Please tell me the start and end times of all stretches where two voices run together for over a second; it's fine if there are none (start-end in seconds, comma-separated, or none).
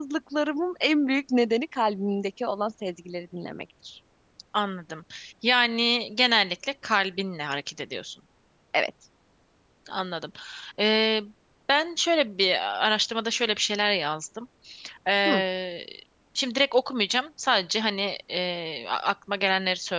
none